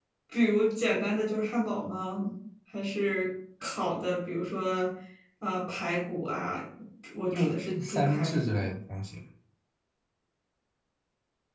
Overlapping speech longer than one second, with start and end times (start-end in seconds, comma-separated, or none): 7.3-8.7